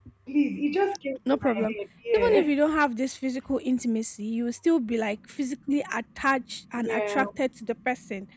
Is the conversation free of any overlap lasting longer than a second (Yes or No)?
Yes